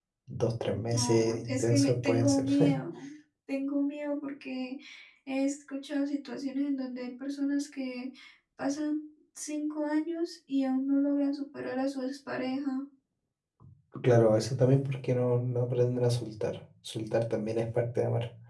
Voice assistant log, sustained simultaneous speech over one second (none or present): present